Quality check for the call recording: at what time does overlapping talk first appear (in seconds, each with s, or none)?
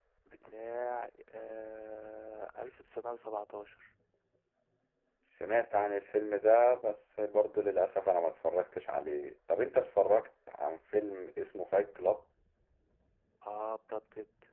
none